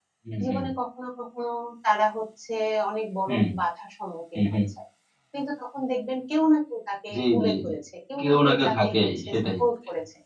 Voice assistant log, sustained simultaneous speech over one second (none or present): present